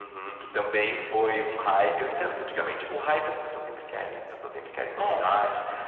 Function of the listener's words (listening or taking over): listening